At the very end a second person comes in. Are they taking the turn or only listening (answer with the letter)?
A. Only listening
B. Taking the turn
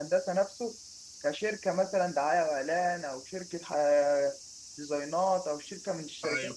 B